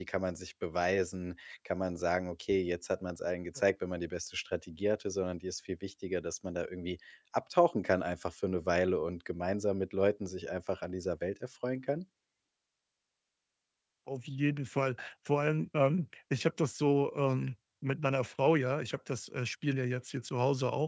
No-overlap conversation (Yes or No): Yes